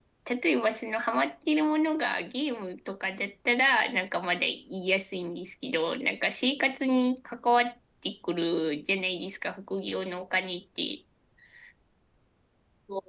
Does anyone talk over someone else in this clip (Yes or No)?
No